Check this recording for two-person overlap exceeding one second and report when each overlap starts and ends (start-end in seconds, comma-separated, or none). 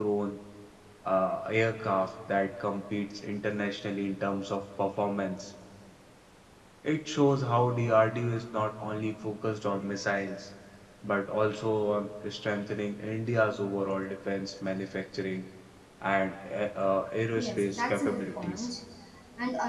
17.4-18.7